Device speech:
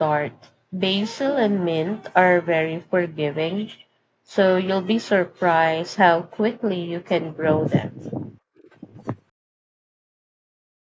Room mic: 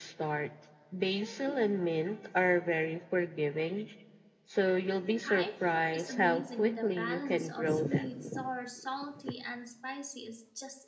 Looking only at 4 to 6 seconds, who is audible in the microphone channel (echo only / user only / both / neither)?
both